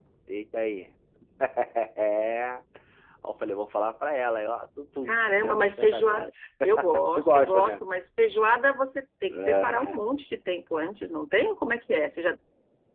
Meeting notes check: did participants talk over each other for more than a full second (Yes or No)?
Yes